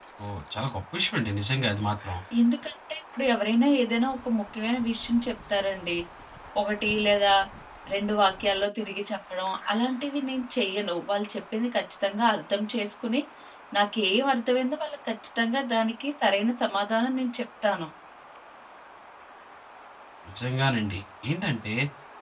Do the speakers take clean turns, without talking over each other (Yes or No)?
Yes